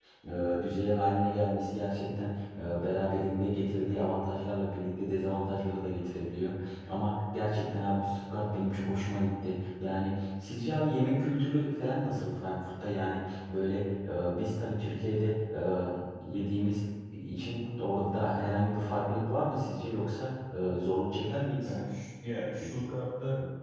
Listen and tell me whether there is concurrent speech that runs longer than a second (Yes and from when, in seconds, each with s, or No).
No